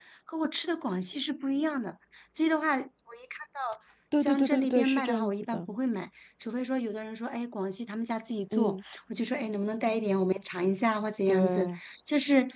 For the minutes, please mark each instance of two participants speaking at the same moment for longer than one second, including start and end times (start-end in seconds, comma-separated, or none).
4.2-5.6